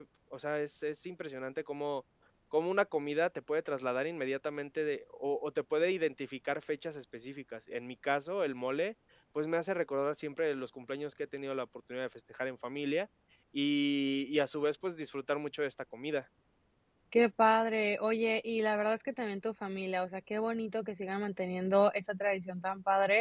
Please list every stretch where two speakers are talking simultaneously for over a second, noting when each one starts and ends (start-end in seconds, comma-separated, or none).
none